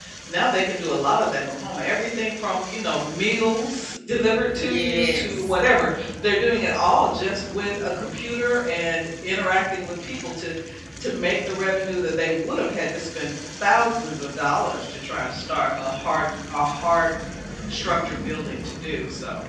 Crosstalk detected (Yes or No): Yes